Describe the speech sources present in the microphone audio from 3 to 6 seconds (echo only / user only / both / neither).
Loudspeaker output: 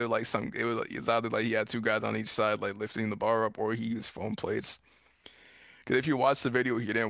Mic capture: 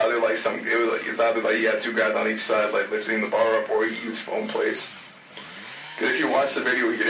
echo only